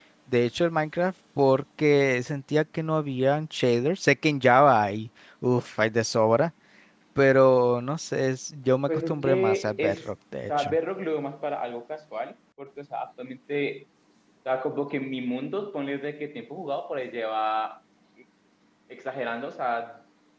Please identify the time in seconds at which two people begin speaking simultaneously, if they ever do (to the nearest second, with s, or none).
9 s